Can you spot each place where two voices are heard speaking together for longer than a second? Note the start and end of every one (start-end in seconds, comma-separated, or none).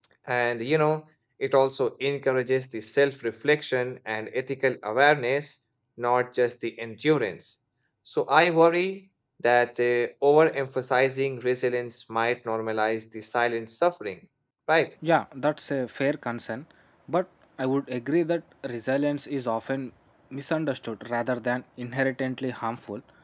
none